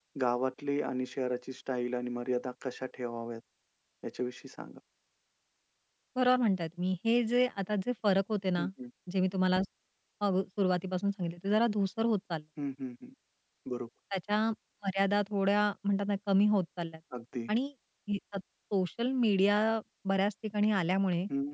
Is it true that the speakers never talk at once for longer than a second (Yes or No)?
Yes